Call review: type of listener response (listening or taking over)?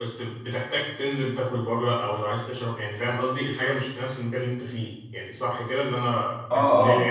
taking over